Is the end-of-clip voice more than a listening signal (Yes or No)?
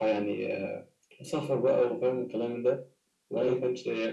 No